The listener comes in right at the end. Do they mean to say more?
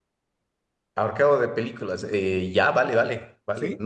No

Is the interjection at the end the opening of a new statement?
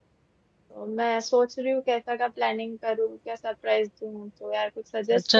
Yes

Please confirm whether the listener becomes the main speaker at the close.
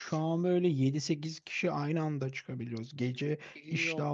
No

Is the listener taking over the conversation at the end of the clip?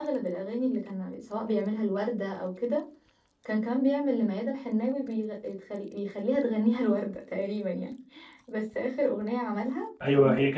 Yes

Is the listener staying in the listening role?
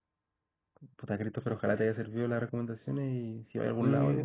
No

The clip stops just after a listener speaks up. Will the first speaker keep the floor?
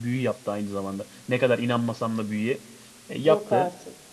Yes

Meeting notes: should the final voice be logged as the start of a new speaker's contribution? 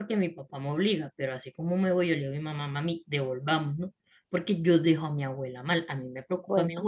No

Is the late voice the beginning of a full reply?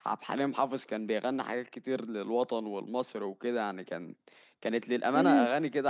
Yes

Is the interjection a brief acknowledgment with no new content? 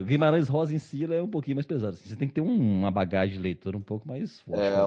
No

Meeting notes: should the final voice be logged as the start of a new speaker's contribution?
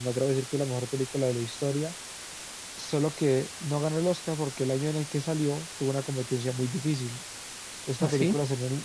No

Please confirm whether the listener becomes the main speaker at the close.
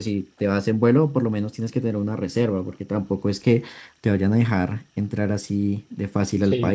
Yes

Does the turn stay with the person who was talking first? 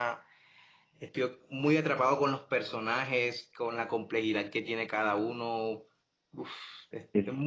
No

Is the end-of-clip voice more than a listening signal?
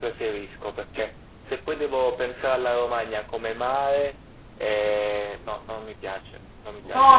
Yes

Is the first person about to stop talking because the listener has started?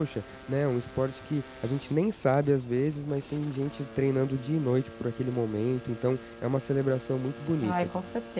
Yes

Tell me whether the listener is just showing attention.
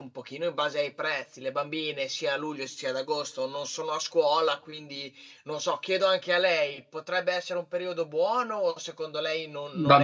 No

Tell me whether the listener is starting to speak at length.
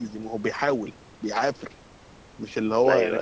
No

